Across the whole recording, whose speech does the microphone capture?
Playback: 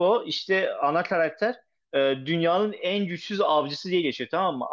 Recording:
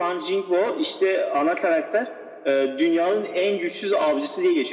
echo only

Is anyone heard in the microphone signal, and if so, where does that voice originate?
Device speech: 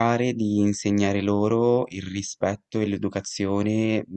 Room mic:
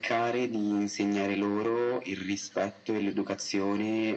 echo only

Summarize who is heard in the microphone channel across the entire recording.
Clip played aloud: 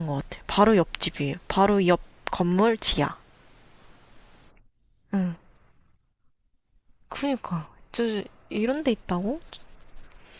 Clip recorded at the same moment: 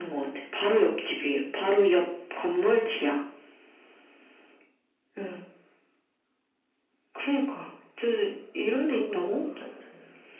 both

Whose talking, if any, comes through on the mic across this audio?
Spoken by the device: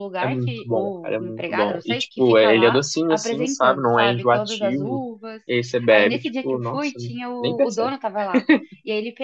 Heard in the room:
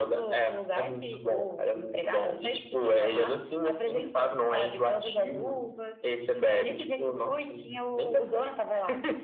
echo only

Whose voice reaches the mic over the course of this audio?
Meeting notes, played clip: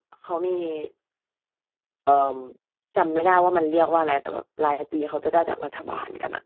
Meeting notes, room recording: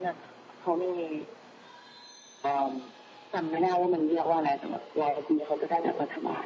echo only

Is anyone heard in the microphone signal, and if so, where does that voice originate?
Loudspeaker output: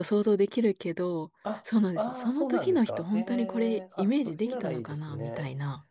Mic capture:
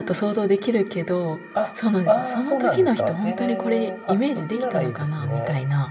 echo only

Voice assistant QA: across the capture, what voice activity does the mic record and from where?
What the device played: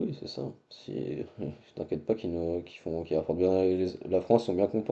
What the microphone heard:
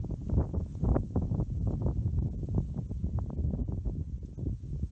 neither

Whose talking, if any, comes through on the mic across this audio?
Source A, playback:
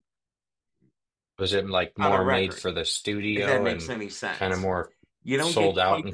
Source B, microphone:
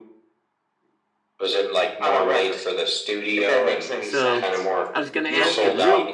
both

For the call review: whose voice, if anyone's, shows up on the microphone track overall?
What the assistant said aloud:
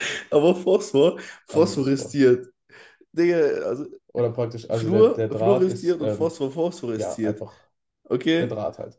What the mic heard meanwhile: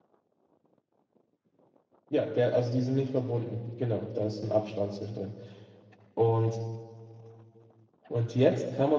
user only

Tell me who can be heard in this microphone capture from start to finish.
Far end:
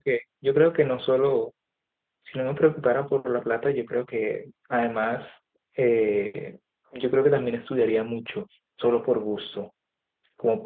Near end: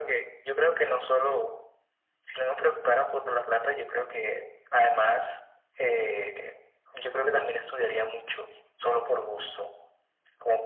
echo only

